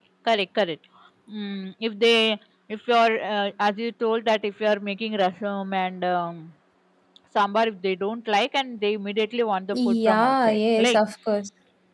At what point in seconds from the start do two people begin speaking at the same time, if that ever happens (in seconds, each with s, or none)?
9.7 s